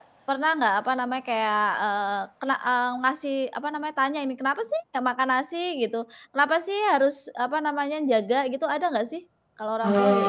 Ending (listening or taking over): taking over